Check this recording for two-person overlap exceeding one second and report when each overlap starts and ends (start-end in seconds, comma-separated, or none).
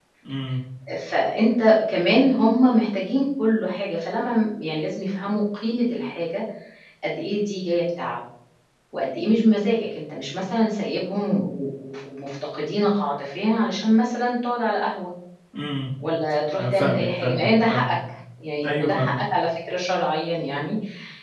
16.5-18.0